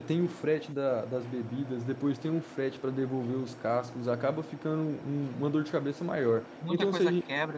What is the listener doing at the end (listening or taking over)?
taking over